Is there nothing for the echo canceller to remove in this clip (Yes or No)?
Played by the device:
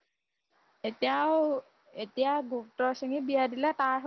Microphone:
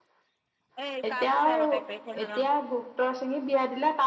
No